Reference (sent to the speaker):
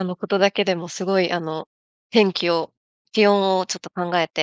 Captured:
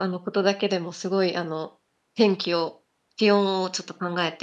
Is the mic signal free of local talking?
Yes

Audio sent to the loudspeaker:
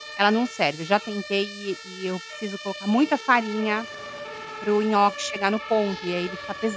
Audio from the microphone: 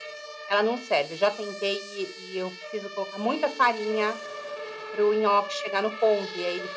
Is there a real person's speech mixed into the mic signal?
No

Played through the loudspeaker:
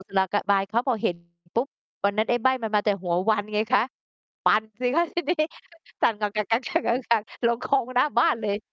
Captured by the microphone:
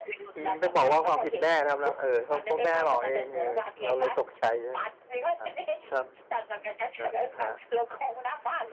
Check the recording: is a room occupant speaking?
Yes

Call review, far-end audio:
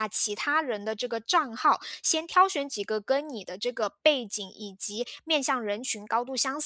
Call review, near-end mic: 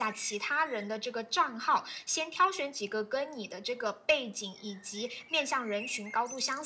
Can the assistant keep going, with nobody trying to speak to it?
Yes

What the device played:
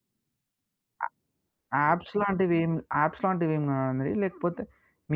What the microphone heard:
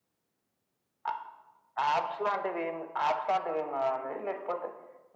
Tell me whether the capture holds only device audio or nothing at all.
Yes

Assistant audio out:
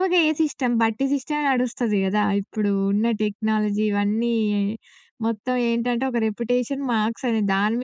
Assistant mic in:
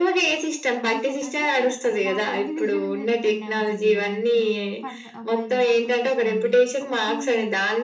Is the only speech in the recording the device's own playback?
No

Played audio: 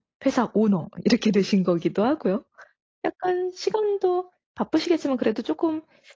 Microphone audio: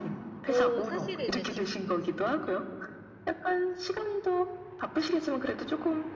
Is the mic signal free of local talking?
No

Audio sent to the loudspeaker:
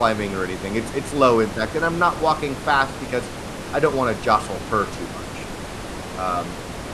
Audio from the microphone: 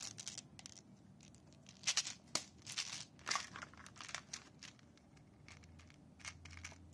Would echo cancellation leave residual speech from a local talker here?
No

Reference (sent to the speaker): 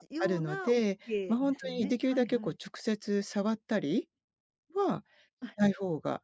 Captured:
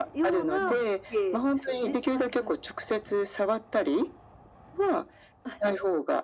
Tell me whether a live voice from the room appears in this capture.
Yes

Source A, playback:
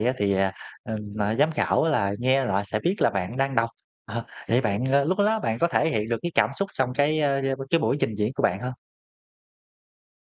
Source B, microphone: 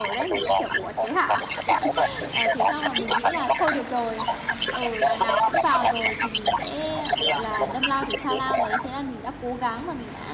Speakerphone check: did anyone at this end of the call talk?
Yes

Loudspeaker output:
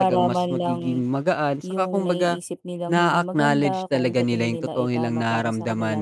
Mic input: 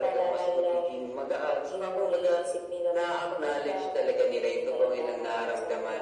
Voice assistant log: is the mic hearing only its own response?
Yes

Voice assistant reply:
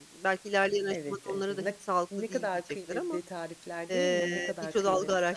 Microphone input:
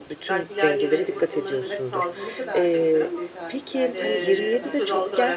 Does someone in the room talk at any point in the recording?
Yes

